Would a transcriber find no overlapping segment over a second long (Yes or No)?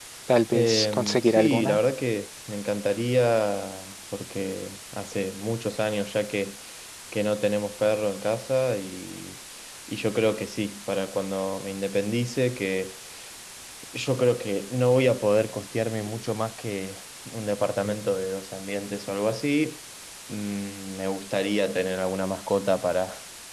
No